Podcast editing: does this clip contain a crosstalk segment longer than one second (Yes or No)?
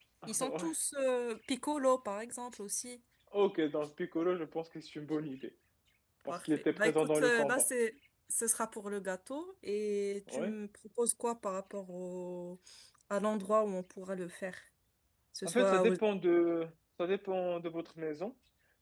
Yes